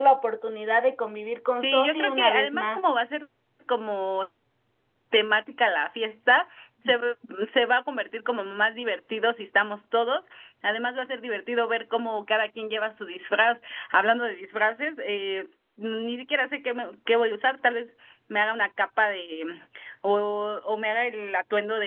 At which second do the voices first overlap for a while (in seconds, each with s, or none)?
1.6 s